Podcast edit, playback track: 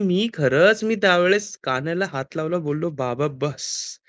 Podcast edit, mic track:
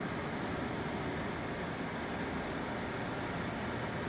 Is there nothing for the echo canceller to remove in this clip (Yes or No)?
Yes